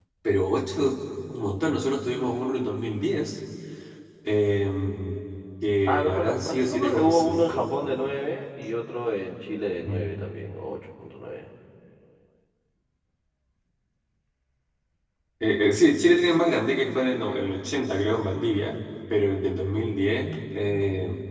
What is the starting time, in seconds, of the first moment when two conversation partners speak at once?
5.9 s

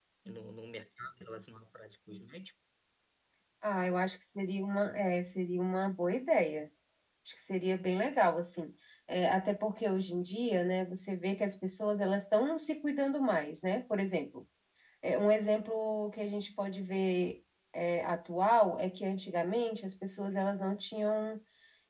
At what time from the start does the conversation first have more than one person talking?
none

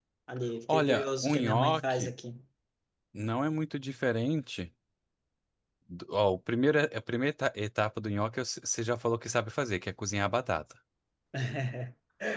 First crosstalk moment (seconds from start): 0.7 s

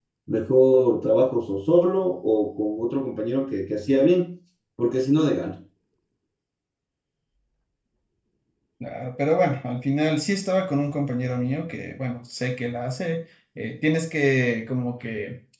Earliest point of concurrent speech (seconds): none

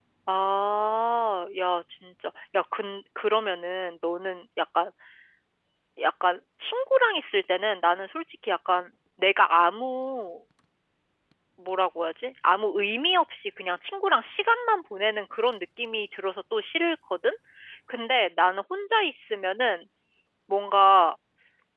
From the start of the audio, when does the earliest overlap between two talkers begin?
none

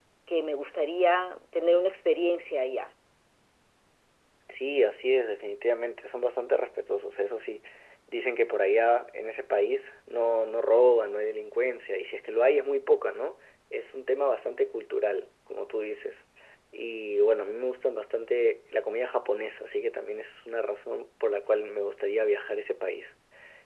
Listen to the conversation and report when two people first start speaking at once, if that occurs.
none

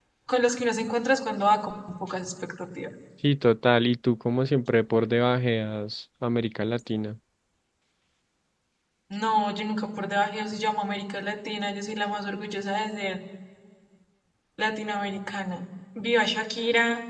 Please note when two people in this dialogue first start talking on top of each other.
none

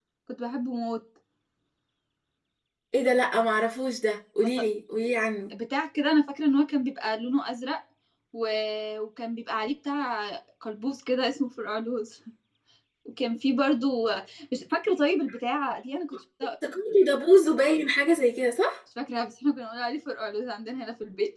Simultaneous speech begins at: none

